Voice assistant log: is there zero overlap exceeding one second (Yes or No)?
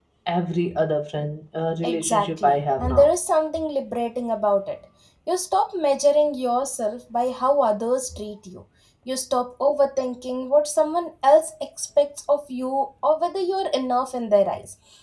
No